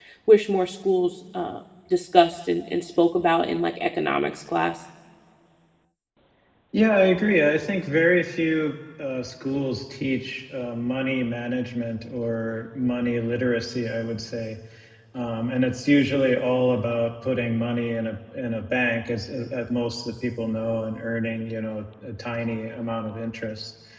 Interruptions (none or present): none